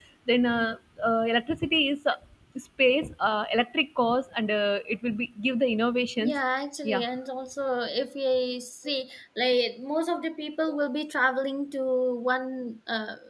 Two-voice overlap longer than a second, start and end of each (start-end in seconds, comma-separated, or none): none